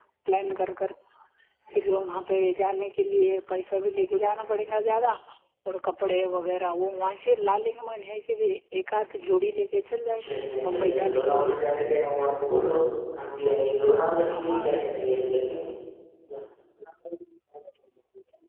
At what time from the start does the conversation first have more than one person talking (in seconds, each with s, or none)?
10.2 s